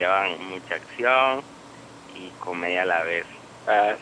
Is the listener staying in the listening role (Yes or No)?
Yes